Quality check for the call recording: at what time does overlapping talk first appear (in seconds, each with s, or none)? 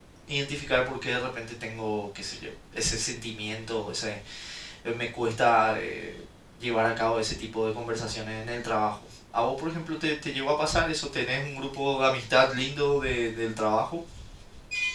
none